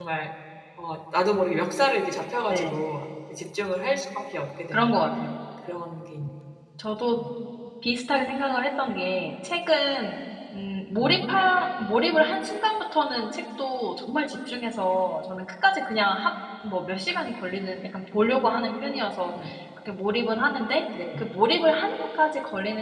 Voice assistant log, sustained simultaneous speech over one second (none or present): none